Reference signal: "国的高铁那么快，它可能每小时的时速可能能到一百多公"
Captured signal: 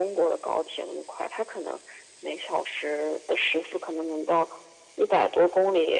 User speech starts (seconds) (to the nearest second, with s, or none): none